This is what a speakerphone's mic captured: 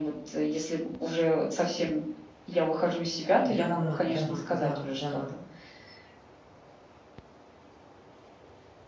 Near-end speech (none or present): present